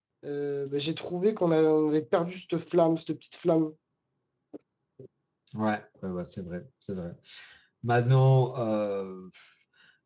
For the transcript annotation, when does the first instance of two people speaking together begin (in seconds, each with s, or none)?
none